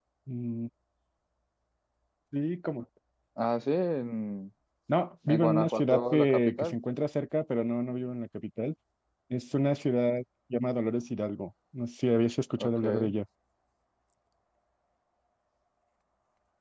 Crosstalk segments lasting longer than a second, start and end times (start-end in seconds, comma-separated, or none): 5.3-6.8